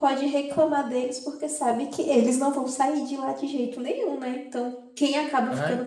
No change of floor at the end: Yes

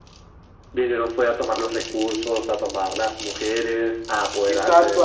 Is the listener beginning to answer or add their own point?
Yes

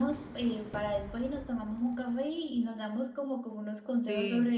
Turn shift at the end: No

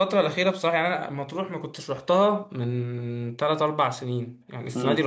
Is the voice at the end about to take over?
No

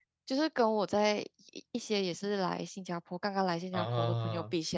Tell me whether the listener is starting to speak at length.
No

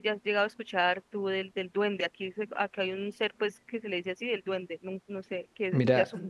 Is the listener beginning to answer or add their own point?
Yes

